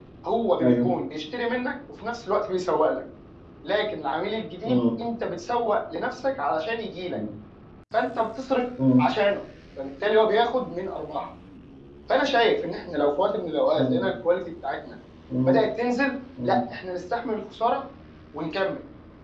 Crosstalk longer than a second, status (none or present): none